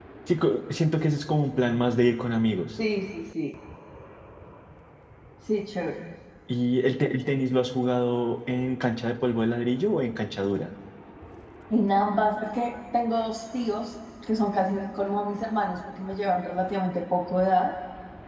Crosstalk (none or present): none